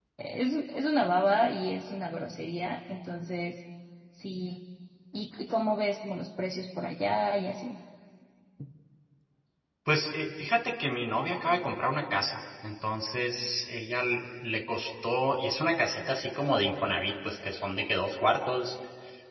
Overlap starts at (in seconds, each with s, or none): none